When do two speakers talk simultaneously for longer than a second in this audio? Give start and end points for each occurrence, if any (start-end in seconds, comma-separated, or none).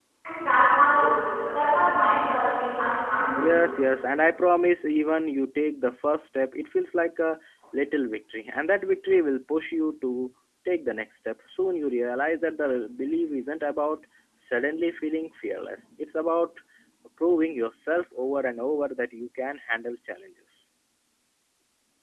none